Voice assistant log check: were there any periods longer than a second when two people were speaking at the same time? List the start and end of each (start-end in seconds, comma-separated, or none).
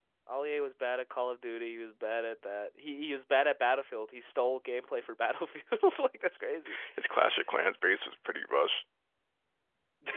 none